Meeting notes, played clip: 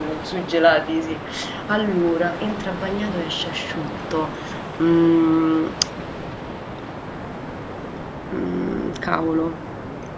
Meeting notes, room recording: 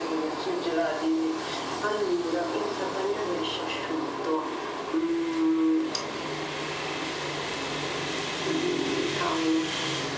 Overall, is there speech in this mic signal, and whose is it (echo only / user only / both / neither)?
echo only